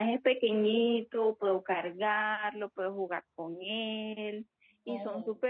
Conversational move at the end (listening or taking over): taking over